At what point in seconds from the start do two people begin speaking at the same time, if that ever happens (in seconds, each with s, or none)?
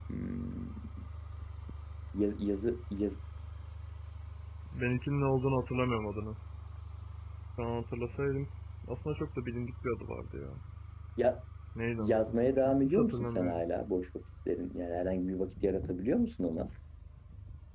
12.0 s